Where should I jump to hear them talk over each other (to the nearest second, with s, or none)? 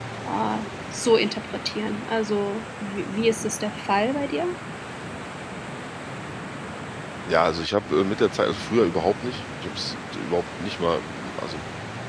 none